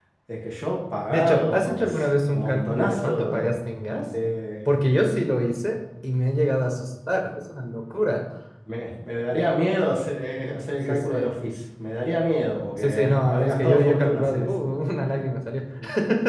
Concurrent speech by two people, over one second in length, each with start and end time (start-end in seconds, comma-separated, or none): 1.1-3.5, 12.8-14.5